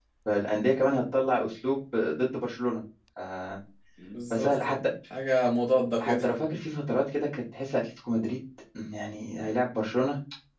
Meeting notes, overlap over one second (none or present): none